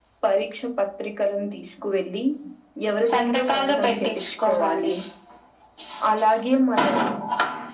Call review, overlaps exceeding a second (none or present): present